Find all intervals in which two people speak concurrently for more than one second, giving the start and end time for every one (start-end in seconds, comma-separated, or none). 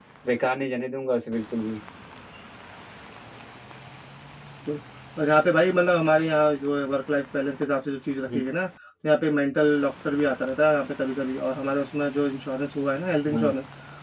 none